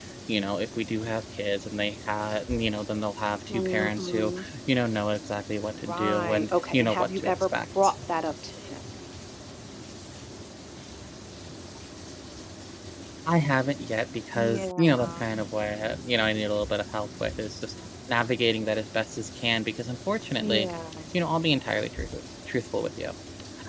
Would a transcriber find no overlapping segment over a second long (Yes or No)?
No